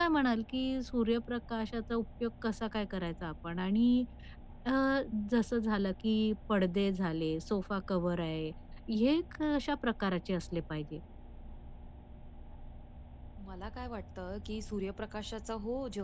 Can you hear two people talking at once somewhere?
No

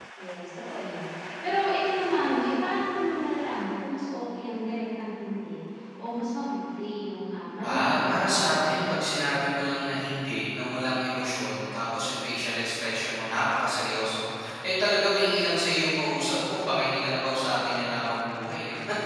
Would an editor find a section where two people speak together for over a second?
Yes, from 7.6 s

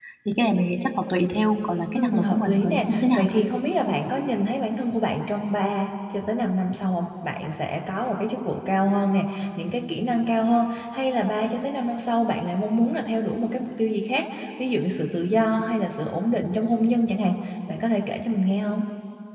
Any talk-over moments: Yes, from 1.9 s

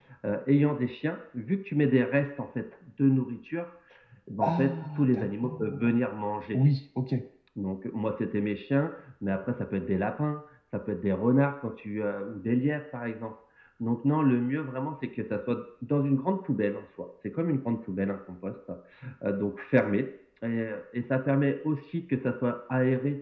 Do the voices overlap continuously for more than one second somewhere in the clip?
Yes, from 4.5 s

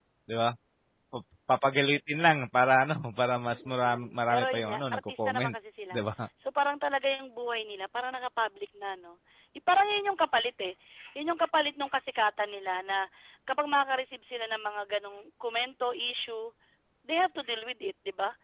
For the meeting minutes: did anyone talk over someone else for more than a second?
Yes, from 3.5 s

